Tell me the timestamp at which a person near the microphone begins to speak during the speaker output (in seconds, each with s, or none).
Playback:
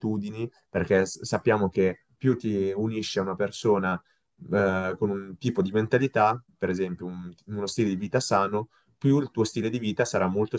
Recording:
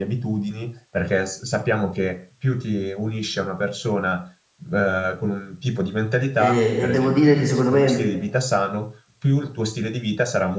6.4 s